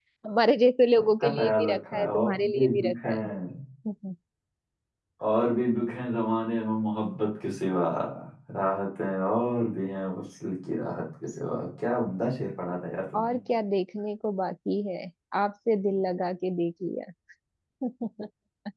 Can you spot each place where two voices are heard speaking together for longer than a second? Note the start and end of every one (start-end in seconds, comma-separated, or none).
1.2-3.1